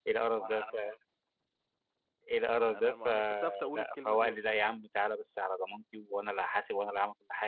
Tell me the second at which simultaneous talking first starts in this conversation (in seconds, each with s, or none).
2.5 s